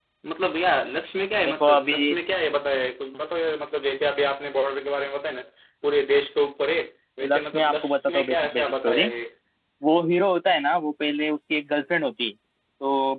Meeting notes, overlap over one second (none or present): present